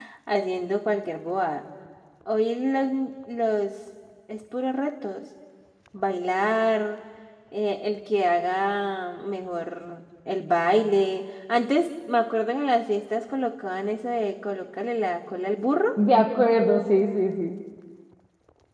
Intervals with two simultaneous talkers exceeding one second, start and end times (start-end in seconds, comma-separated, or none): none